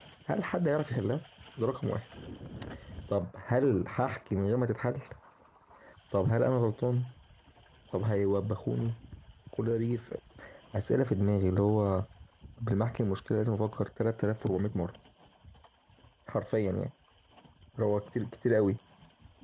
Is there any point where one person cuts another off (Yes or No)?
No